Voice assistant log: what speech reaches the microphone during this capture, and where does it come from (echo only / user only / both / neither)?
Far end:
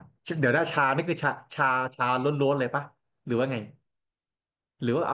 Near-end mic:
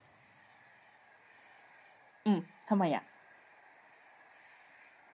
user only